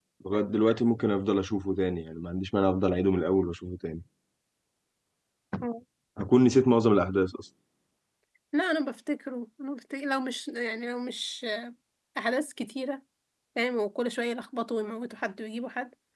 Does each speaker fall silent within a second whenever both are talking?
Yes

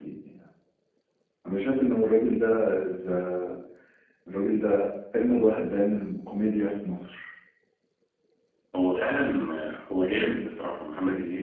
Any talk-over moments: No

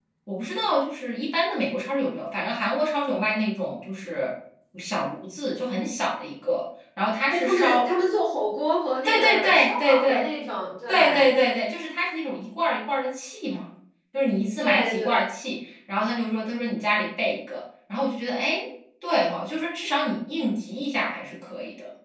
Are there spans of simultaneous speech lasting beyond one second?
Yes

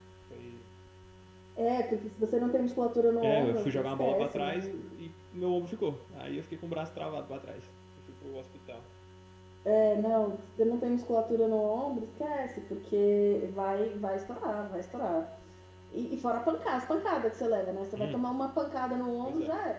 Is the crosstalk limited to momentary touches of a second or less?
No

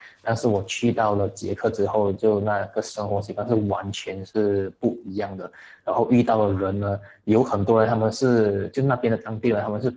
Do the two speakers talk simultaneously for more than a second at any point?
No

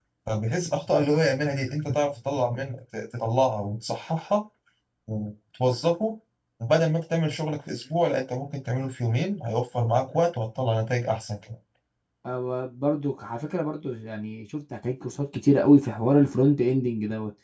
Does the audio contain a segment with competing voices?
No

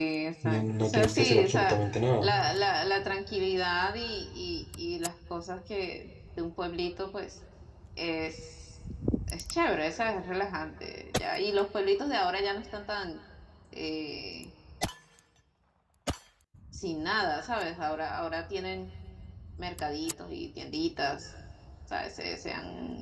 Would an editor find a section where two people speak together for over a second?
Yes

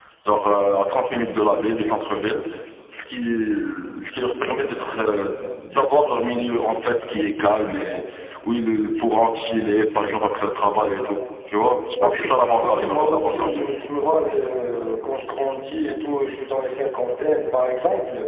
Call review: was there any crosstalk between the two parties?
Yes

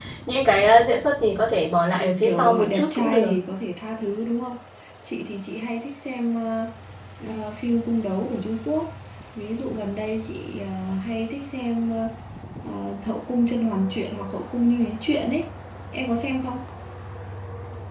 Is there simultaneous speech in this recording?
Yes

